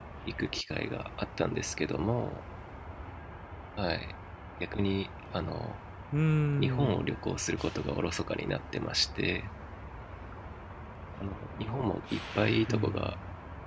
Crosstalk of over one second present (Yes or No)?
No